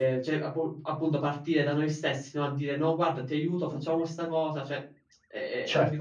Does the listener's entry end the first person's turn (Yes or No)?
Yes